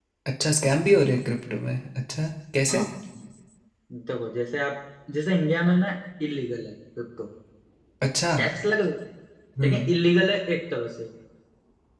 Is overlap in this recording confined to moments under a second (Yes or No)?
Yes